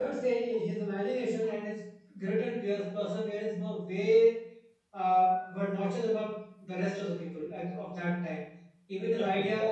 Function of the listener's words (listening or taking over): listening